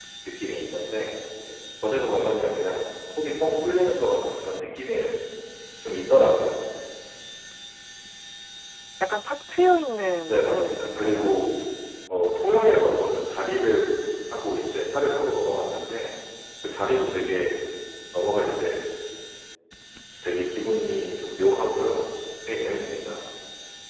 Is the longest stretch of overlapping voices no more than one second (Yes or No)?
No